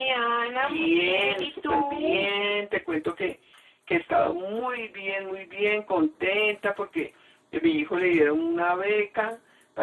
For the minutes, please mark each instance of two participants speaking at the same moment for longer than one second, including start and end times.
0.6-2.3

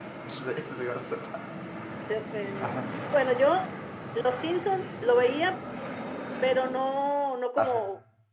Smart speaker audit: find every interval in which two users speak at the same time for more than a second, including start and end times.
none

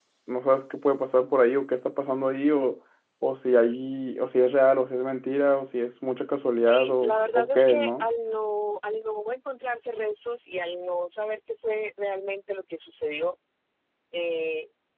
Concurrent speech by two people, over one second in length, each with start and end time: 6.7-8.1

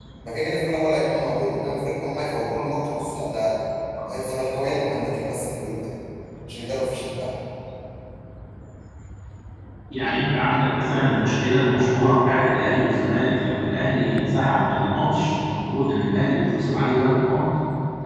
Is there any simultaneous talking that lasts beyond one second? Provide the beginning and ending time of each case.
none

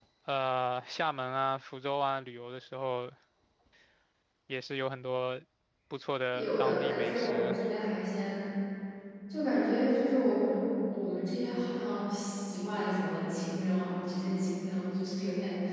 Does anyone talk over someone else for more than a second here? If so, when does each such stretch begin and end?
6.3-7.6

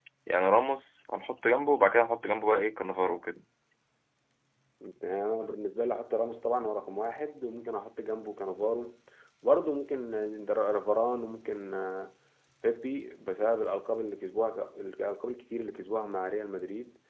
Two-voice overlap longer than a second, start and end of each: none

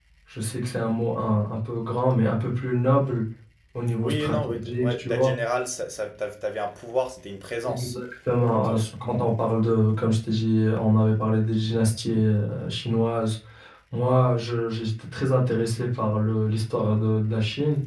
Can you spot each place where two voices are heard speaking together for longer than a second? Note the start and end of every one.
4.0-5.3

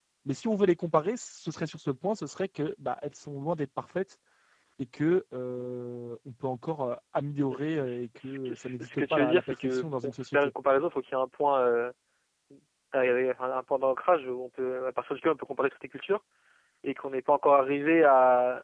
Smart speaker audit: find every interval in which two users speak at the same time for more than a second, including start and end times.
7.5-10.4

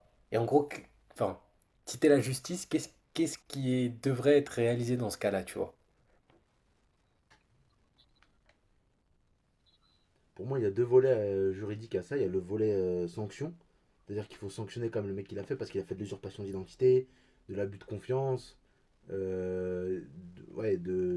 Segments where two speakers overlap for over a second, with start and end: none

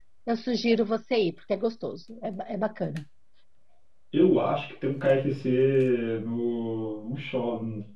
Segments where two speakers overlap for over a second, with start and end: none

